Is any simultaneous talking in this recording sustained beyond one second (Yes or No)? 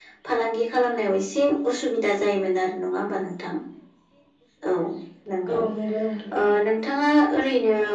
No